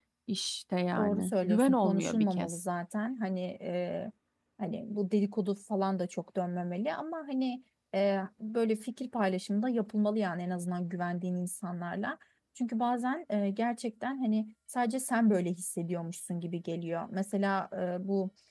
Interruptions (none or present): present